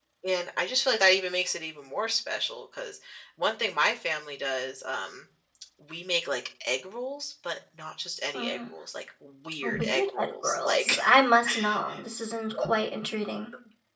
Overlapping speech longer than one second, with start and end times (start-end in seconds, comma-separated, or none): 9.6-11.0